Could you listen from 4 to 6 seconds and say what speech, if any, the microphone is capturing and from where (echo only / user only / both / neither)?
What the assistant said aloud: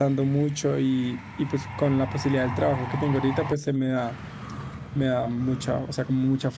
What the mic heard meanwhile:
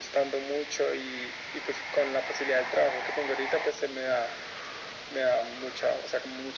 echo only